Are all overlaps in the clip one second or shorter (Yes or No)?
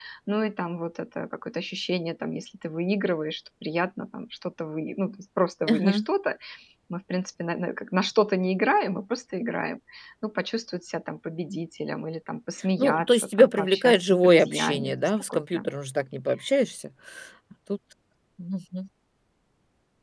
No